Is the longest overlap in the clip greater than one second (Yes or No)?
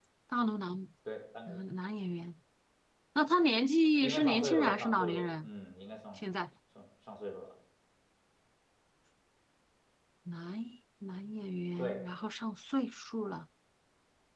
Yes